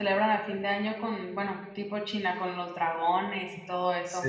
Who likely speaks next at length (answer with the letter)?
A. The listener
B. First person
A